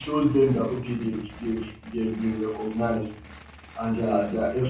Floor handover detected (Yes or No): No